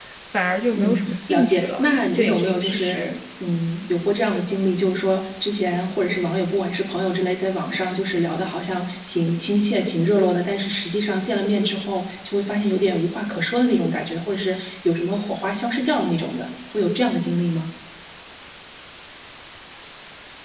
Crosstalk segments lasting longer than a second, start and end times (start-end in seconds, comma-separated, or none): 0.7-3.1